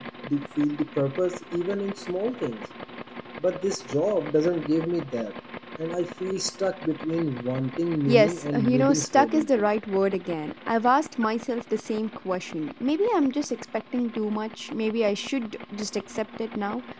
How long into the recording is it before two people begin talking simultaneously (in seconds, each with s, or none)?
8.1 s